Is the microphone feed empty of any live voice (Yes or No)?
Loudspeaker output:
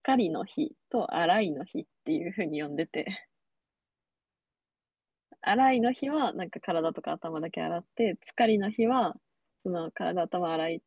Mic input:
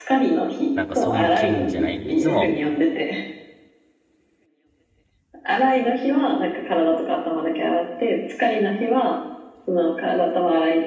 No